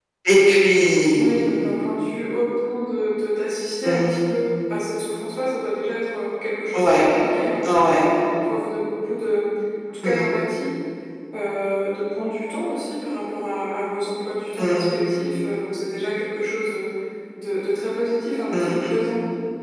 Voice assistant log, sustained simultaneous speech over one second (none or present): none